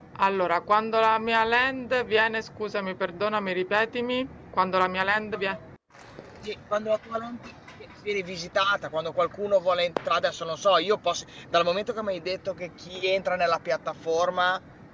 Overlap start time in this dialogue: none

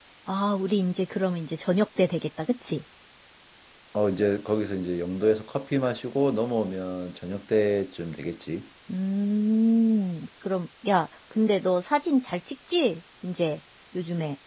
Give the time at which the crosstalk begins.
none

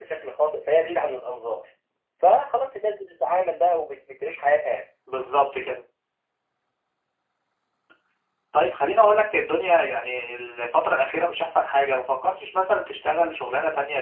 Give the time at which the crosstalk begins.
none

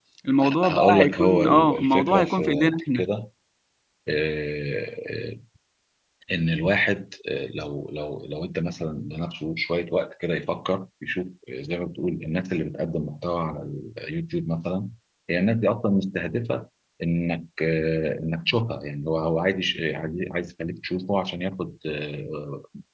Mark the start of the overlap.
1 s

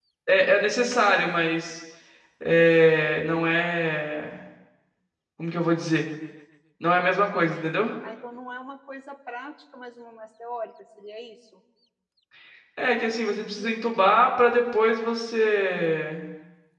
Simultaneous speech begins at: none

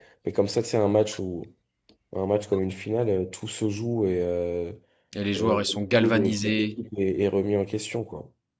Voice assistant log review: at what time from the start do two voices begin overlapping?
5 s

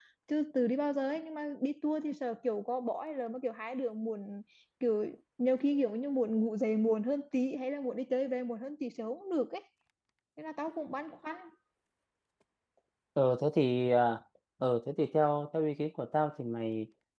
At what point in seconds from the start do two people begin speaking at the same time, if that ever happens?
none

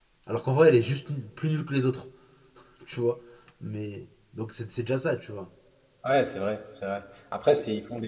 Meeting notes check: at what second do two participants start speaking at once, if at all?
none

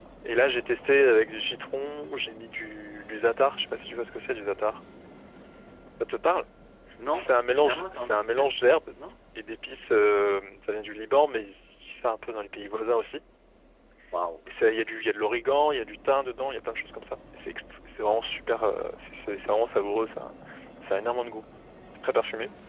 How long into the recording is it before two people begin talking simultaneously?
7 s

